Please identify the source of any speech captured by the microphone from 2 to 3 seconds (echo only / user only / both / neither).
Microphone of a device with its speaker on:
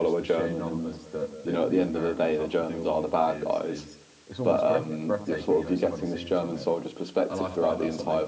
both